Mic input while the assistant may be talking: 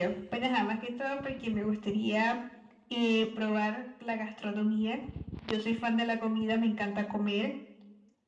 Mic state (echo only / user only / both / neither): echo only